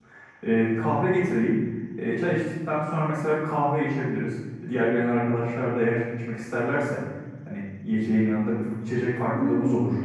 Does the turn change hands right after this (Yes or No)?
Yes